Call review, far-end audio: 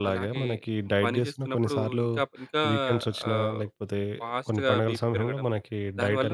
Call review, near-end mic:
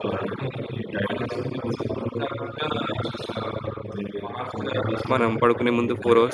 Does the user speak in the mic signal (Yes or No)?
Yes